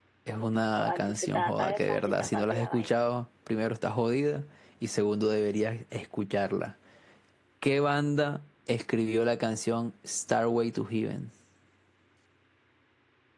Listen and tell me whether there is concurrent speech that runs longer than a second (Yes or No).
Yes